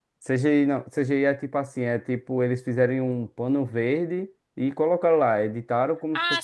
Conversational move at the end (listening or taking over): taking over